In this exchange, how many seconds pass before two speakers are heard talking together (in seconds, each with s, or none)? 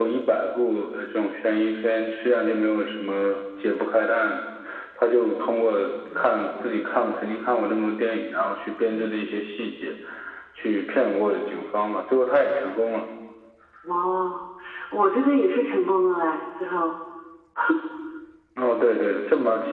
none